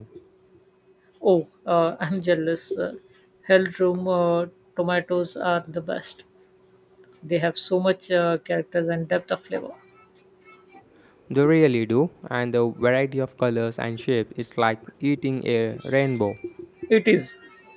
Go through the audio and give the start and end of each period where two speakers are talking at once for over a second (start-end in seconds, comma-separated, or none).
none